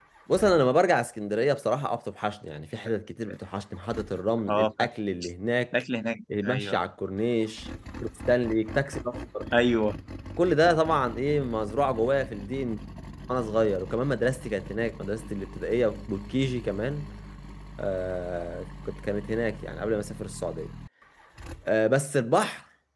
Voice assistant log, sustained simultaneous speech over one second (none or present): none